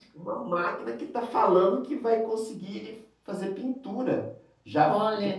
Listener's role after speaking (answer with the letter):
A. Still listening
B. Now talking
A